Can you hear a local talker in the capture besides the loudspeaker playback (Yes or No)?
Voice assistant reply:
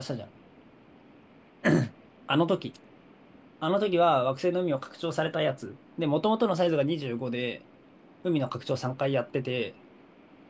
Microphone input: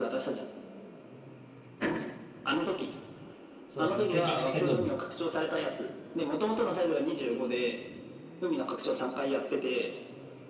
Yes